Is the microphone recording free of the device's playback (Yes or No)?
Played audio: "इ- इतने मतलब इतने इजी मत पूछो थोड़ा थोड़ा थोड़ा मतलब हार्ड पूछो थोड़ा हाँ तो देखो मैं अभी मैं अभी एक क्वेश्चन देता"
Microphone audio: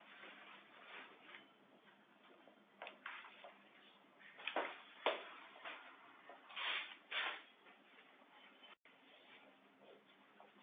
Yes